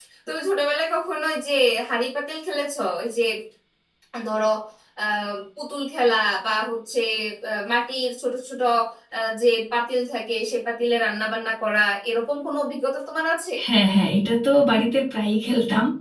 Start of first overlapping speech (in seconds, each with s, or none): none